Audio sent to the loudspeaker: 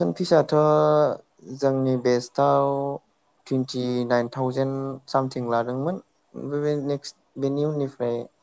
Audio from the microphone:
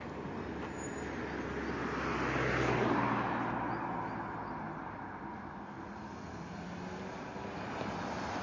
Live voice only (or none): none